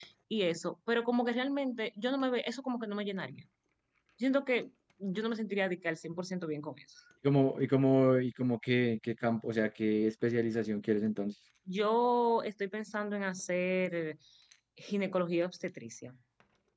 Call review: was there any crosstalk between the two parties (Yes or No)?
No